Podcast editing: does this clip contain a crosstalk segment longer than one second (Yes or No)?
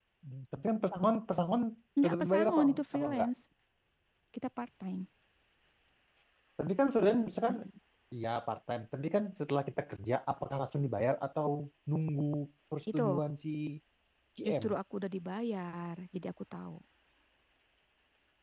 Yes